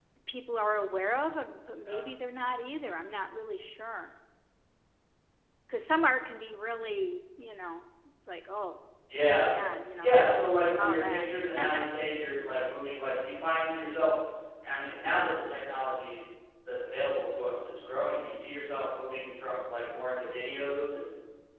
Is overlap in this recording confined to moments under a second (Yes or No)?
No